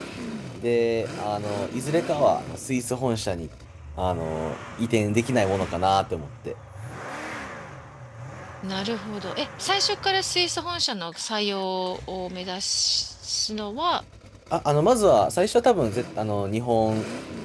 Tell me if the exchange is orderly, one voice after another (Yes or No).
Yes